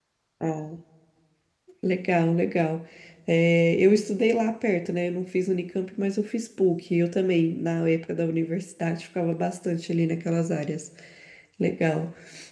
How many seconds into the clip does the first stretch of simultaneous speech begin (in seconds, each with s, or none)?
none